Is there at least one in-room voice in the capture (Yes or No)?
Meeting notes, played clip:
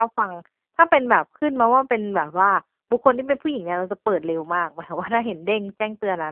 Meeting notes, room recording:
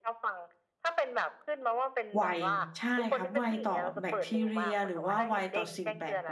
Yes